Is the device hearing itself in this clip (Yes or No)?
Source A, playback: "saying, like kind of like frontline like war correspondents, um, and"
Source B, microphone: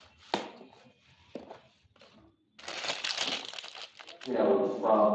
No